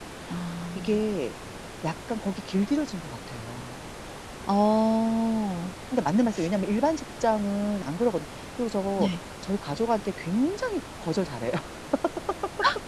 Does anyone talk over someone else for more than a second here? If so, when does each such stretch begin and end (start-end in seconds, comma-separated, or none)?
none